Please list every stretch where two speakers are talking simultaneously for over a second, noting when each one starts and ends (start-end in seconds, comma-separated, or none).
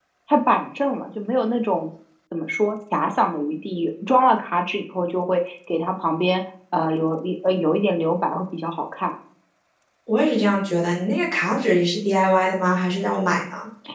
none